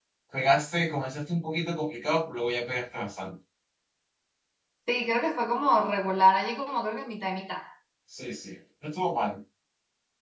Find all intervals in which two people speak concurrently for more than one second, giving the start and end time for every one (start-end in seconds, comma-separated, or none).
none